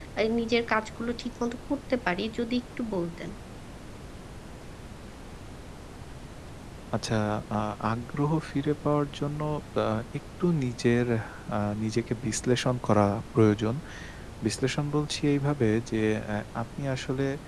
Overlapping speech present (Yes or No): No